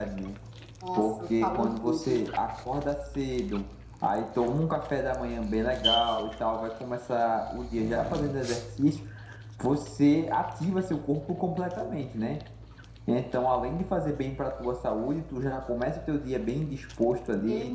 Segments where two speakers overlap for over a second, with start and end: 1.0-2.2

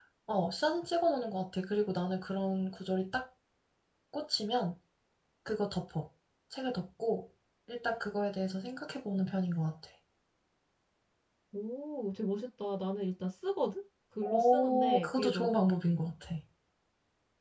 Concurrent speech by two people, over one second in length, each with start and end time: 14.2-15.5

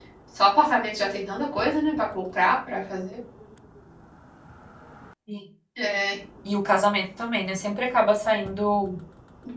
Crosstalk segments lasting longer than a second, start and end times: none

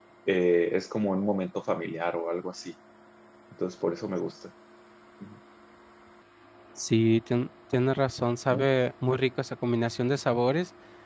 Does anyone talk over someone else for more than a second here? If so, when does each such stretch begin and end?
none

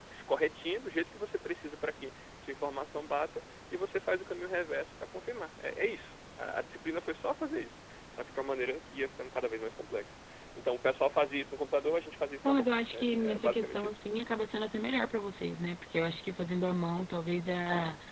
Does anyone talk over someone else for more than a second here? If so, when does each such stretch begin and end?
12.4-14.0

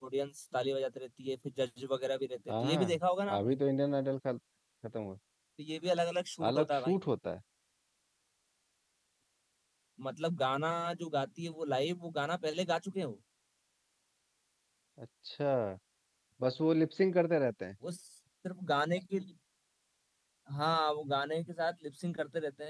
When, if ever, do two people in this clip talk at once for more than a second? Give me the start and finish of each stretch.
none

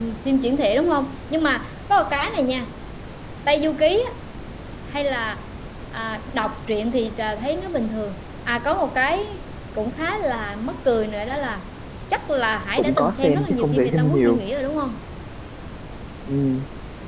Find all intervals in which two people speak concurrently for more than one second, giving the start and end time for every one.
12.8-14.4

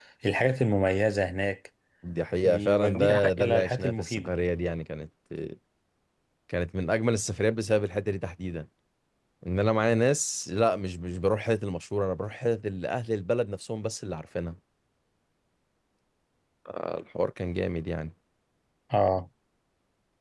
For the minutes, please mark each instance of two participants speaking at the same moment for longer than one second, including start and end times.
2.5-4.3

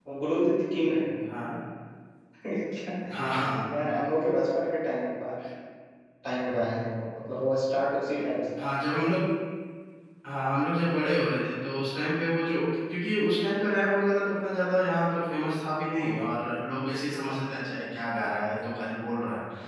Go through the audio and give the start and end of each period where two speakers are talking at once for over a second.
none

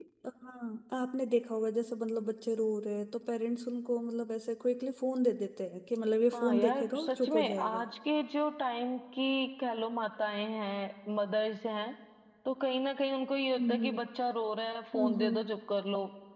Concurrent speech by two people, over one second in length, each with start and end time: 6.3-7.8

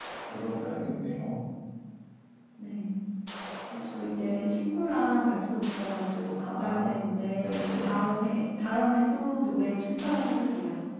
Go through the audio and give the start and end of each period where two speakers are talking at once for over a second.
6.6-7.9

